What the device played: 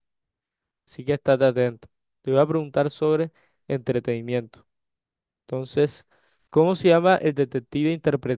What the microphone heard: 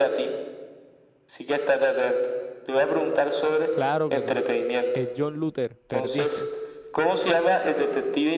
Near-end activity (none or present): present